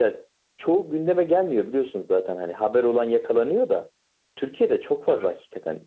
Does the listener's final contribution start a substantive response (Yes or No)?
No